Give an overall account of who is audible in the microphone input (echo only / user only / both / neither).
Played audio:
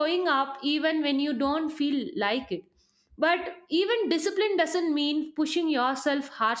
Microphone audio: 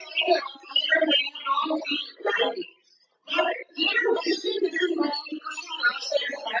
echo only